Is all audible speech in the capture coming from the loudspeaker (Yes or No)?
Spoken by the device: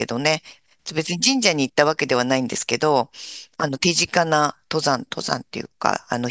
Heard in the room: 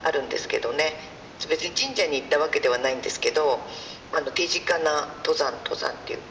Yes